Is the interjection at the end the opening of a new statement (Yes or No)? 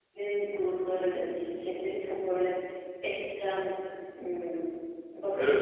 Yes